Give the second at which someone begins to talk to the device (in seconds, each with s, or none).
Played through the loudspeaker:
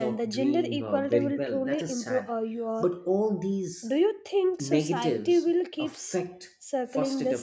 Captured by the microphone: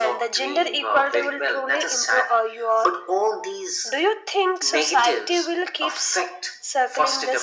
none